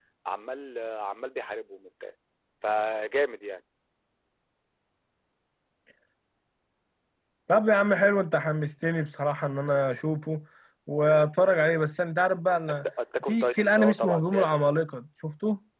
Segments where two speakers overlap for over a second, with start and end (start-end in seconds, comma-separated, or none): 13.3-14.6